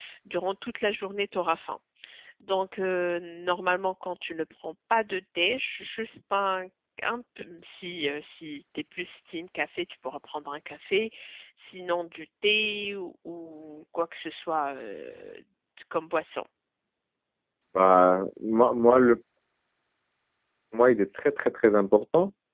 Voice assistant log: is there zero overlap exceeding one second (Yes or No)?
Yes